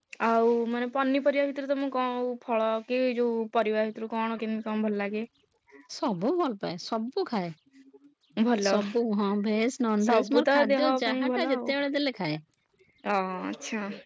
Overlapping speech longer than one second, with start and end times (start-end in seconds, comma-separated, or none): 10.0-11.6